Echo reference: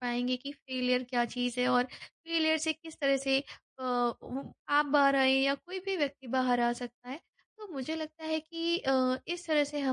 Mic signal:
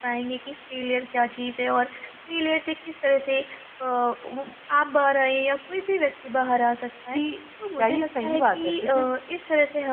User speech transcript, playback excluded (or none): कि क्या ये सही बात है? बिकॉज़